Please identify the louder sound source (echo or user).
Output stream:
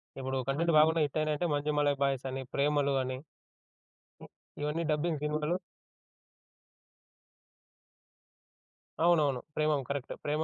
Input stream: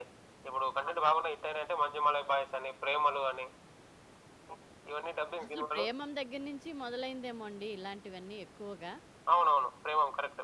echo